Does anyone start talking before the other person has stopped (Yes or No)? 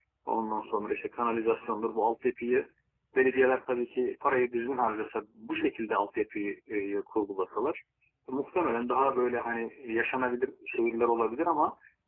No